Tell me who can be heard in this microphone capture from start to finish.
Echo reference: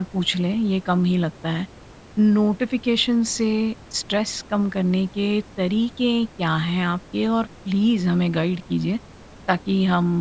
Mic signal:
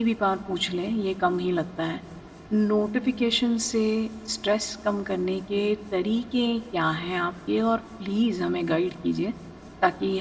echo only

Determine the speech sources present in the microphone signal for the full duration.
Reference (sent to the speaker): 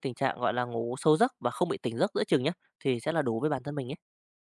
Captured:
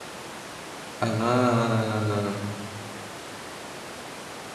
user only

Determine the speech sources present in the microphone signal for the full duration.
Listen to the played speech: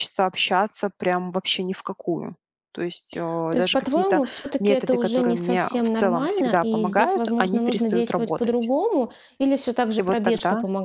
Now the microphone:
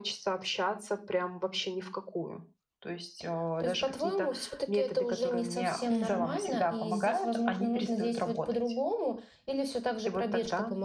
both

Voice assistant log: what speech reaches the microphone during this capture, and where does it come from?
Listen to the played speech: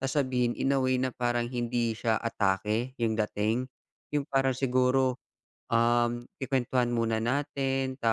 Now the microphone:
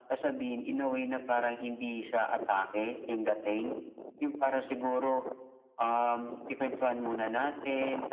echo only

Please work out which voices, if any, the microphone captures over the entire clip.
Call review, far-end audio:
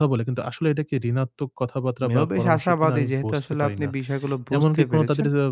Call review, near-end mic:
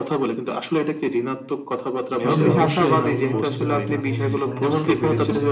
both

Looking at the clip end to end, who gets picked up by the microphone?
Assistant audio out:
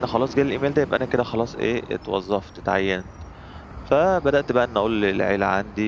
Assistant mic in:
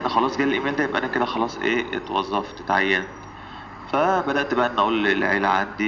echo only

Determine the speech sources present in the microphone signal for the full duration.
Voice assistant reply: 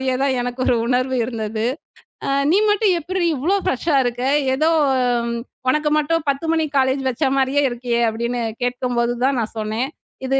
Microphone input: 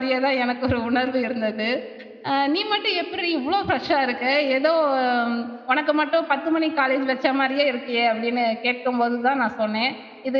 echo only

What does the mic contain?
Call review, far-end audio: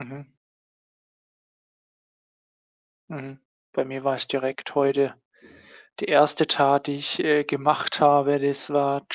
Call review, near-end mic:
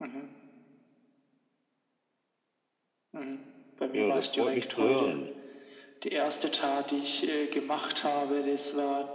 both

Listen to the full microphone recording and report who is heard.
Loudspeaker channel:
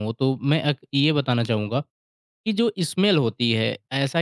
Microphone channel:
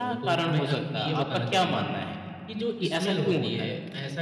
both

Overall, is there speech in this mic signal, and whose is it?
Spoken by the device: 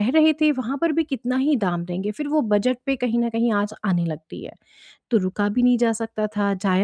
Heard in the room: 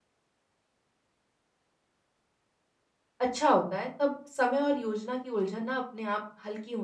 user only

